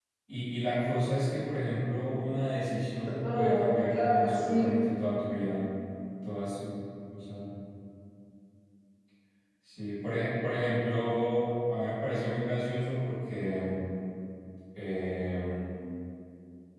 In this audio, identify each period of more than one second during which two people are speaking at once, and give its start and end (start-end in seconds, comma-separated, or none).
3.2-4.7